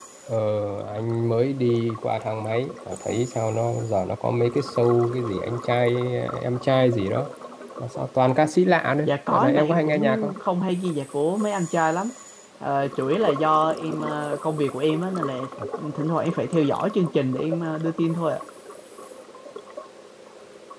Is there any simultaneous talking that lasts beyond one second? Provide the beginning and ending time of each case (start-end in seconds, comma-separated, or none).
9.0-10.3